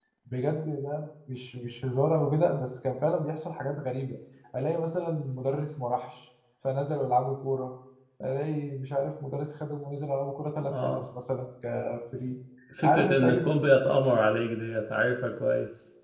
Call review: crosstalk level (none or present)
present